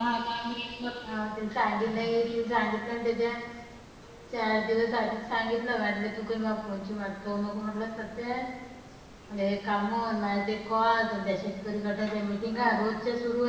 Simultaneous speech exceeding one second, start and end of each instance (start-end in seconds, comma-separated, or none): none